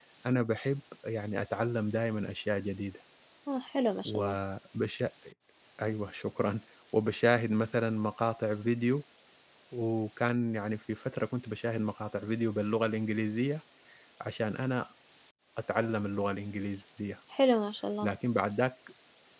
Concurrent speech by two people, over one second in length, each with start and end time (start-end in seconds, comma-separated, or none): none